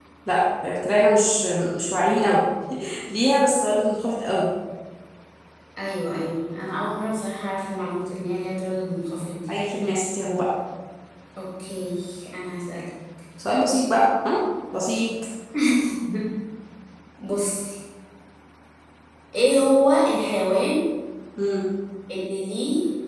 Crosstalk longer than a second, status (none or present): none